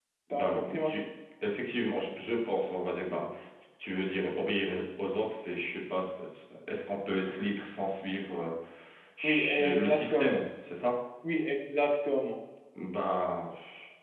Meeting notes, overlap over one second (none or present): present